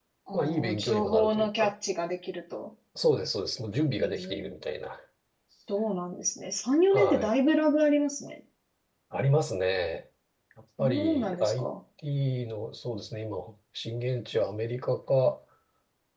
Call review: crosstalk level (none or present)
present